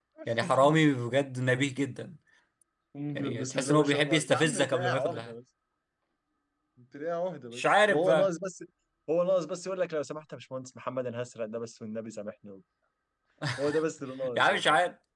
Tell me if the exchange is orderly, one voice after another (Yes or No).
No